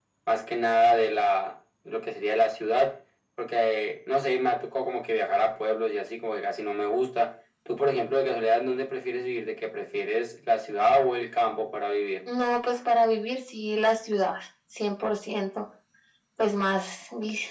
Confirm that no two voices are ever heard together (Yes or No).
Yes